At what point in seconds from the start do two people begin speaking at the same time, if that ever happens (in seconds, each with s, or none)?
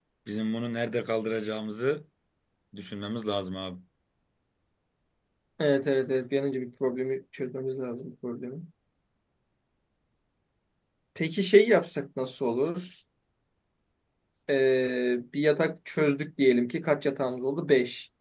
none